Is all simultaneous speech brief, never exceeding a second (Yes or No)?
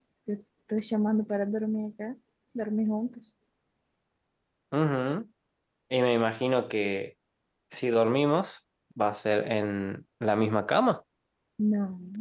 Yes